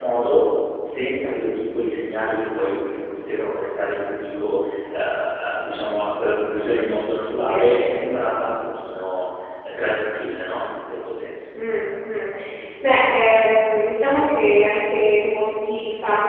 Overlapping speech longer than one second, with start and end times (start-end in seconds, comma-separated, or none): none